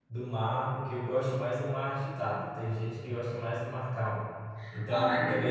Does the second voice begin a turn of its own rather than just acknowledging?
No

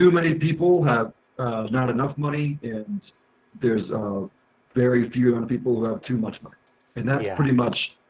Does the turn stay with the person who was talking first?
Yes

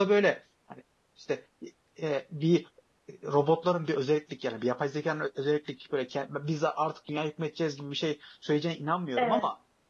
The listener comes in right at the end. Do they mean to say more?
No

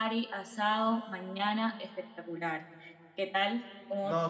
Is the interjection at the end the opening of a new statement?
Yes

